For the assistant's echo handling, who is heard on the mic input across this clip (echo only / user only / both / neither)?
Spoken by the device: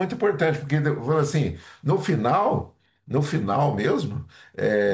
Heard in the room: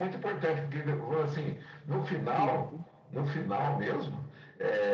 both